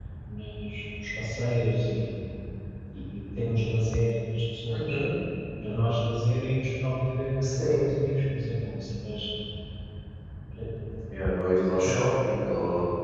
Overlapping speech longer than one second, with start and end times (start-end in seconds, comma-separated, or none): none